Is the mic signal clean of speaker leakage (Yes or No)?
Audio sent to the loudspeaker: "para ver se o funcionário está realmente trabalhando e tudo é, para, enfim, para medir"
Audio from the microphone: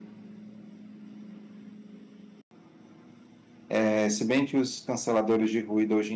Yes